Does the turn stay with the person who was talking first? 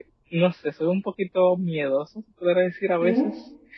Yes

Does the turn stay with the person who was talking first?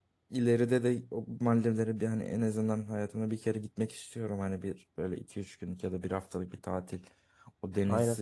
Yes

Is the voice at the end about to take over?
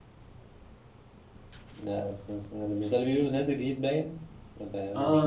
Yes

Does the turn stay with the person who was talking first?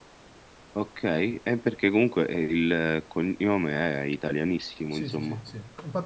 No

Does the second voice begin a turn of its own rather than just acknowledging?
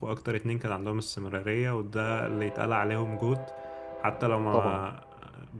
No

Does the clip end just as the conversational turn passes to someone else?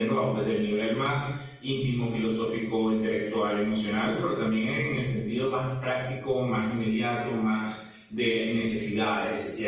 Yes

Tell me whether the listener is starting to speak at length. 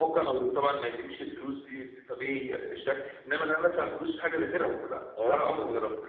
Yes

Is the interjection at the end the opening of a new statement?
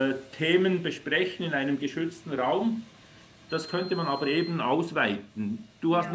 No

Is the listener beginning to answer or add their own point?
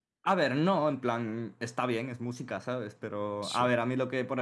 No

